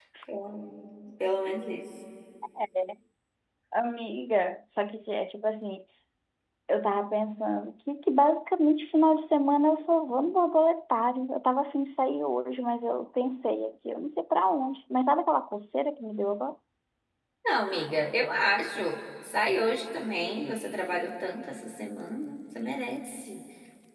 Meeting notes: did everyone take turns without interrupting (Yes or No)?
Yes